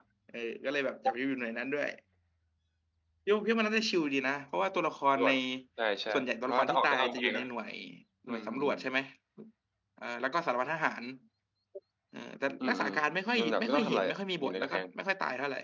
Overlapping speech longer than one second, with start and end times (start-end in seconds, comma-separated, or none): 6.1-7.4, 13.4-14.8